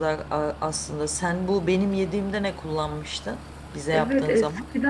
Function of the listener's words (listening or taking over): taking over